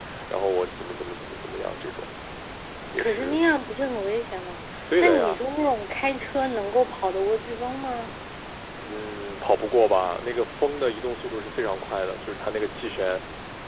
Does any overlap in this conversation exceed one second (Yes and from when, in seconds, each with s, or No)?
No